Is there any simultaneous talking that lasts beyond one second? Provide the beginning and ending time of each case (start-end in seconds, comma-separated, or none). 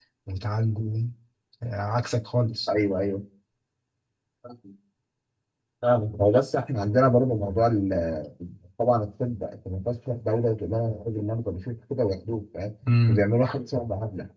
none